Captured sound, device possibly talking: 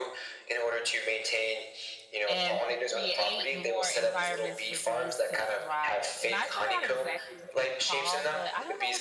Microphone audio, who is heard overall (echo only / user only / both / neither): both